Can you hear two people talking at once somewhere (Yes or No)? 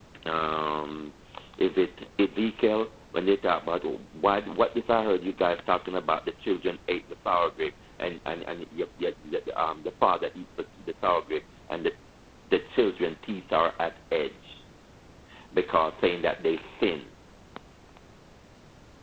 No